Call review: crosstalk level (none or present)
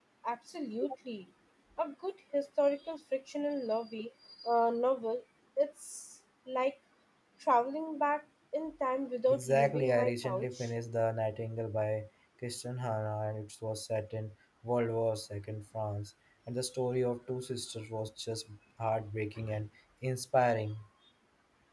present